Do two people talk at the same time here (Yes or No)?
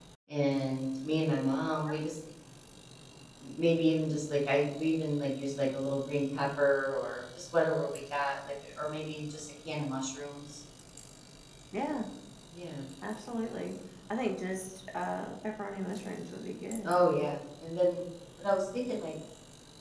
No